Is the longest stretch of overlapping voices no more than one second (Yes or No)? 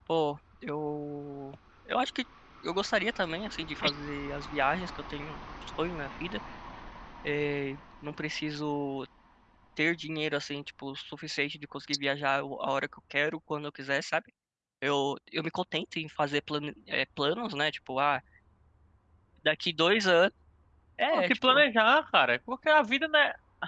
Yes